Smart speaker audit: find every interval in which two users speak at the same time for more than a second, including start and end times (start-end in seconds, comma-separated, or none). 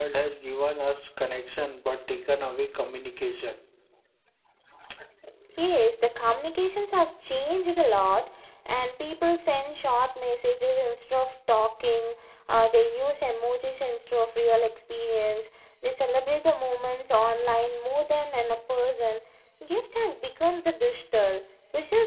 none